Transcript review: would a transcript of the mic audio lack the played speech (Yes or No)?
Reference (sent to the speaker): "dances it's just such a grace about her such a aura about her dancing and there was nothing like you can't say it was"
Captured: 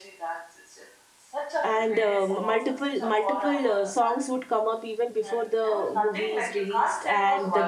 No